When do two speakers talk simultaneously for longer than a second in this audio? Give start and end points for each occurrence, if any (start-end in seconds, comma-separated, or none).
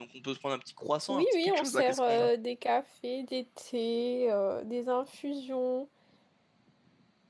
1.1-2.3